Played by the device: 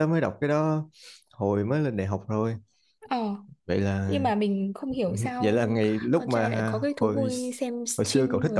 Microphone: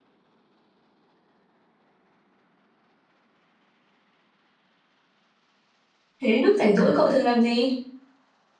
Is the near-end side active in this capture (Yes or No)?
Yes